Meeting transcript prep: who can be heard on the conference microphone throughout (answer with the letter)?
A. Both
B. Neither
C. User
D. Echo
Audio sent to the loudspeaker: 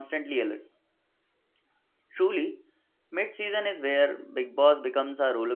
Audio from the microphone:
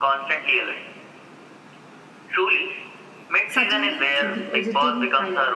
A